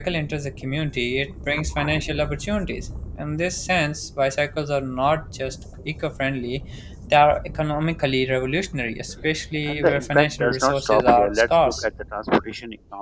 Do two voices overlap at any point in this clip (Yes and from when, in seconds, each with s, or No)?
Yes, from 9.7 s